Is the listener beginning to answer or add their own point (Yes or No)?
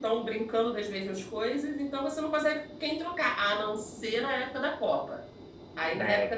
No